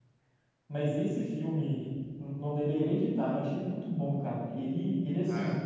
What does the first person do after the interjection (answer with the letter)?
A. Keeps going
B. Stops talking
A